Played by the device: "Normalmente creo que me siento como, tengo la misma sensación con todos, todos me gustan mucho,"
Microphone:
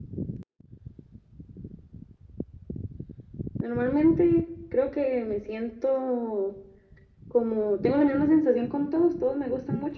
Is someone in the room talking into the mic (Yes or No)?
No